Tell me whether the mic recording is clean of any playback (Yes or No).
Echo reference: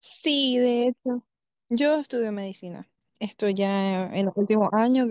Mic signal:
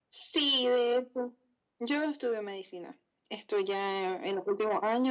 No